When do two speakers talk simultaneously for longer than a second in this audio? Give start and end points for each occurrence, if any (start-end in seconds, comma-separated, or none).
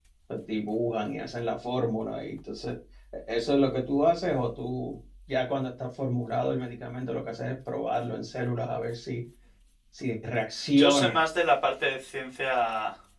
none